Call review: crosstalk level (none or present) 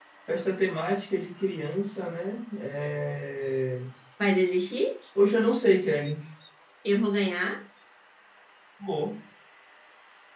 none